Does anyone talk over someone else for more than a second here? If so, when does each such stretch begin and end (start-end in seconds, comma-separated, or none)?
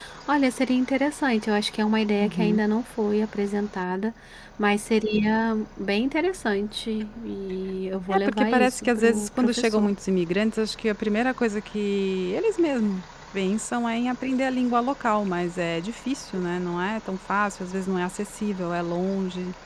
8.1-9.9